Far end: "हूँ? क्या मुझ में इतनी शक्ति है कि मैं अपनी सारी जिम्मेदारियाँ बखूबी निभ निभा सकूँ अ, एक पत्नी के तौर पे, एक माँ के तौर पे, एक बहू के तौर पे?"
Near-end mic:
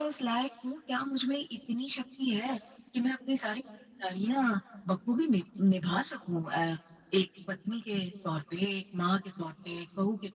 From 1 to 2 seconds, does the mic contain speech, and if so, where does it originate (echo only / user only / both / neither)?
echo only